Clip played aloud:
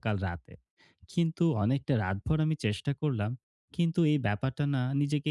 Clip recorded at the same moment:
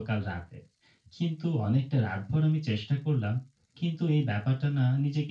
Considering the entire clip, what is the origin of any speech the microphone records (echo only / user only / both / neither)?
echo only